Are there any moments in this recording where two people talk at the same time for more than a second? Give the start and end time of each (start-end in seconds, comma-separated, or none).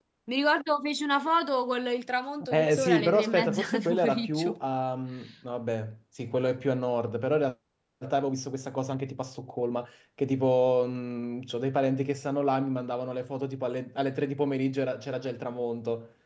2.5-4.5